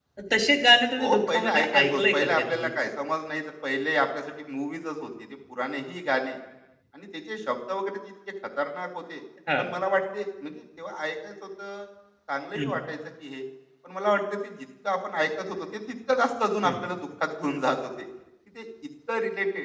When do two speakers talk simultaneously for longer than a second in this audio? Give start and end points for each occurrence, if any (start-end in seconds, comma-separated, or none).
1.0-2.7